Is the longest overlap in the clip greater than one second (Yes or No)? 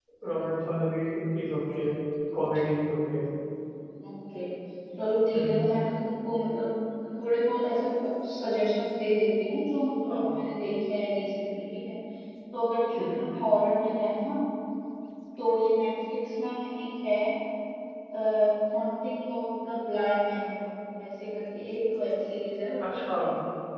No